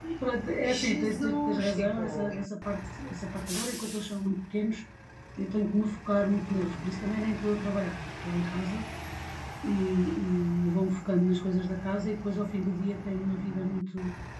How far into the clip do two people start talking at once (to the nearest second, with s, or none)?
1 s